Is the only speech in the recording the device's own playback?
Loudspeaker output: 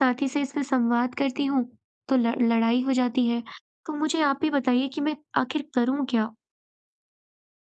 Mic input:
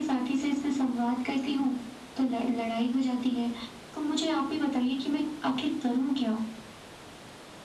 Yes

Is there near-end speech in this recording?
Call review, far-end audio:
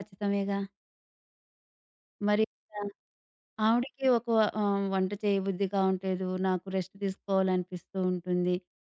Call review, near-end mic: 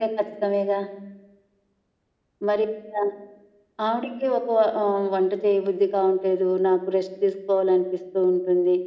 No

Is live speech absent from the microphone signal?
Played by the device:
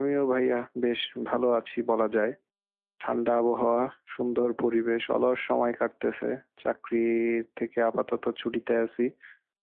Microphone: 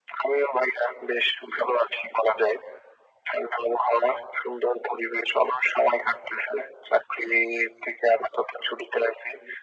Yes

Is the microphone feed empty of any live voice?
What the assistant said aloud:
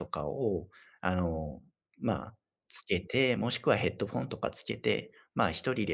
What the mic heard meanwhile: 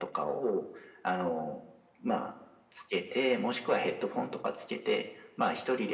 Yes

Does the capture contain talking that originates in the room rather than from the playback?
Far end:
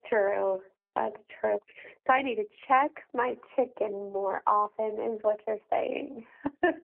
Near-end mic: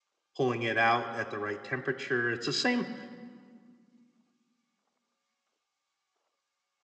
Yes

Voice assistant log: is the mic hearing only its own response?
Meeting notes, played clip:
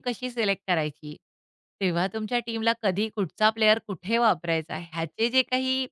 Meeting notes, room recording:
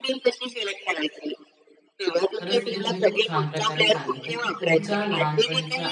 No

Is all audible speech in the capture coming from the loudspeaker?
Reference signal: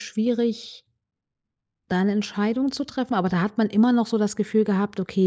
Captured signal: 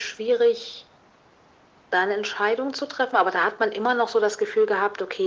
Yes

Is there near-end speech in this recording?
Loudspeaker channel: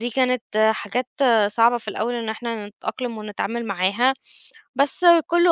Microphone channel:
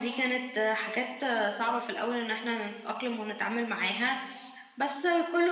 No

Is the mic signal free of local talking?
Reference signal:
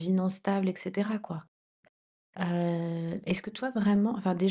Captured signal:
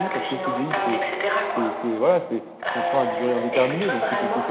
No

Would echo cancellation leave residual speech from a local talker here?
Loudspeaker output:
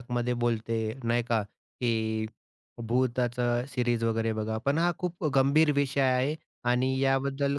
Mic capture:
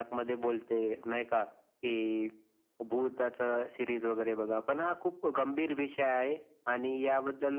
No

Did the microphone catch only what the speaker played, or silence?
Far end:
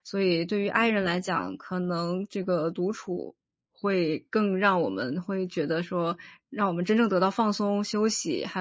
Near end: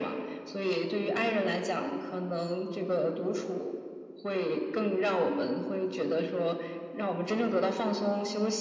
Yes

